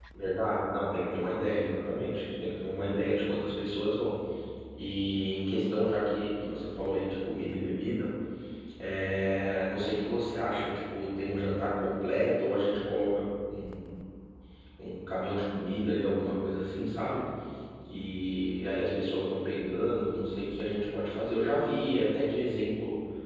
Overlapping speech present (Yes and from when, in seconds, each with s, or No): No